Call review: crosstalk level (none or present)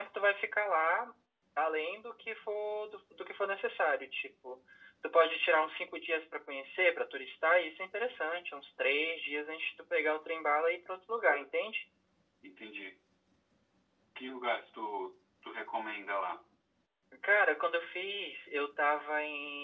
none